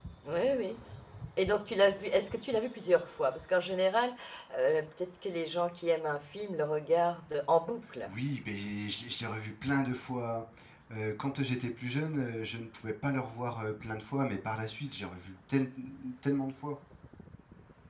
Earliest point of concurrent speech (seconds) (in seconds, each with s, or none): none